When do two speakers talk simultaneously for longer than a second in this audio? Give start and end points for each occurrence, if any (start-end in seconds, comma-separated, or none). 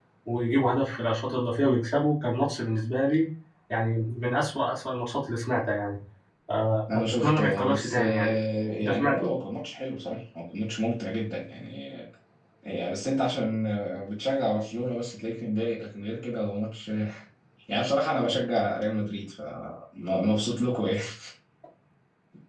6.9-8.4